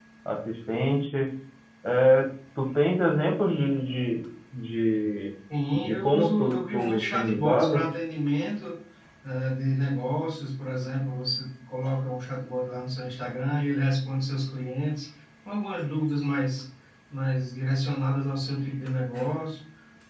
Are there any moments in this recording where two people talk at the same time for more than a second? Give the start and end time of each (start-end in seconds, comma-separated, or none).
5.7-7.8